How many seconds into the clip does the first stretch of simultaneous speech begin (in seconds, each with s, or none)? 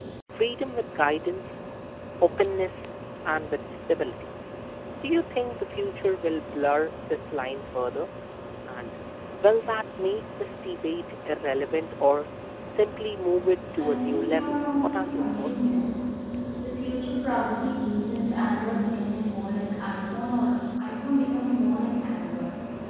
13.8 s